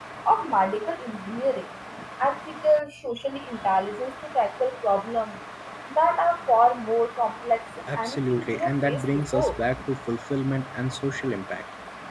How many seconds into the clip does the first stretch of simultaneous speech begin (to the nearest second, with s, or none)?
8 s